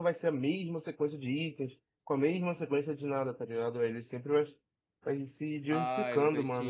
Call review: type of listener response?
taking over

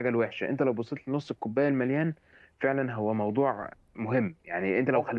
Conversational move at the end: listening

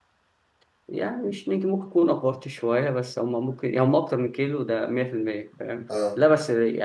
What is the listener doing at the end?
listening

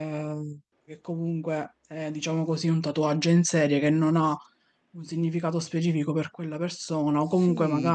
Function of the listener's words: taking over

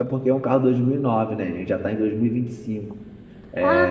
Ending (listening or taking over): taking over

